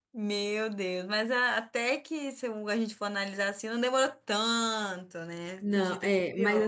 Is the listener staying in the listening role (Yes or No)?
No